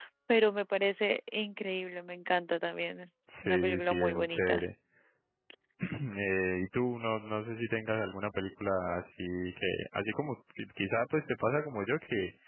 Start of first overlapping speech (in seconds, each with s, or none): 3.3 s